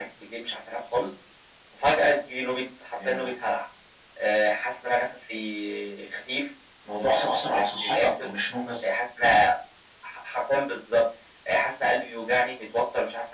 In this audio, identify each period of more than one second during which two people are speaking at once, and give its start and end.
7.0-8.3

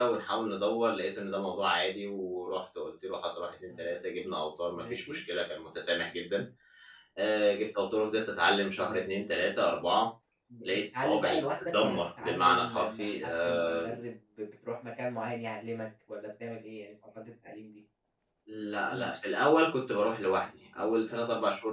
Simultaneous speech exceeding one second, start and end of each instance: 10.6-14.0

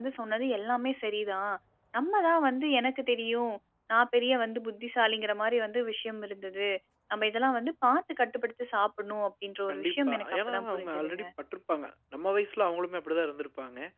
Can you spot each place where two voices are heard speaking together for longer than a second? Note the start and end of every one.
9.7-11.2

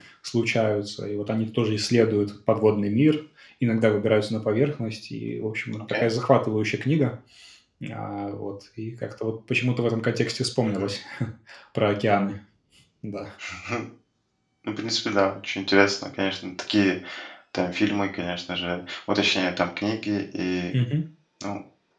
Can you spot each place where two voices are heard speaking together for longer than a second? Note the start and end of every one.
none

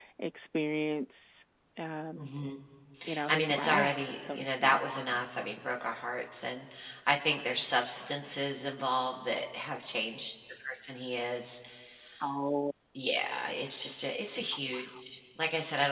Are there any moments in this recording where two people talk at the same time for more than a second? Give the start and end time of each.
3.3-4.8

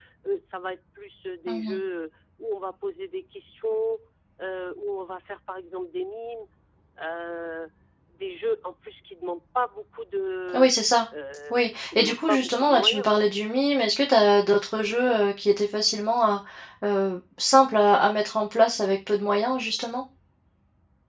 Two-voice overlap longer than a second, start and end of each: 11.5-13.1

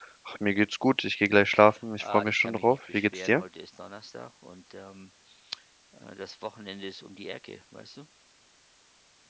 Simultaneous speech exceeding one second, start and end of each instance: 2.0-3.4

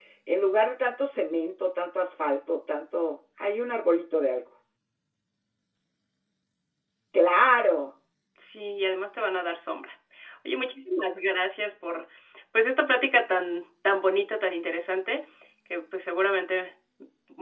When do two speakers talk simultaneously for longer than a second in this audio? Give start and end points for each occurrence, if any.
none

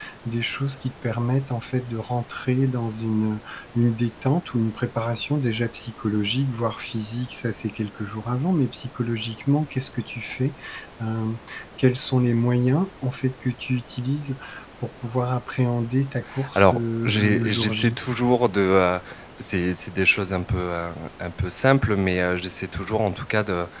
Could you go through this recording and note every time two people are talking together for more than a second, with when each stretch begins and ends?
16.6-18.0

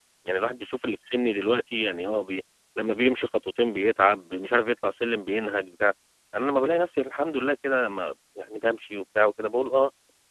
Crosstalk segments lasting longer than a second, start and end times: none

